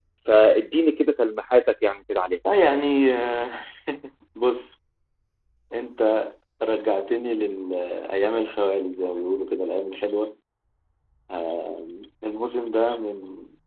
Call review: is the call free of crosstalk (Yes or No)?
Yes